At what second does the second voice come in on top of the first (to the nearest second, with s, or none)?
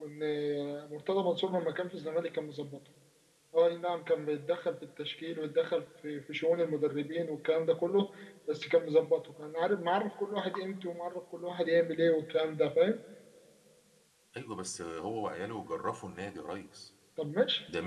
none